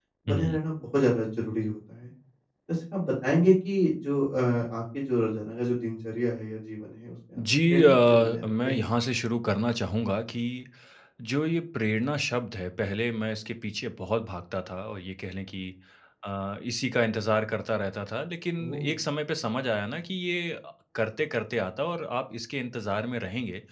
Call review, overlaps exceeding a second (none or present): present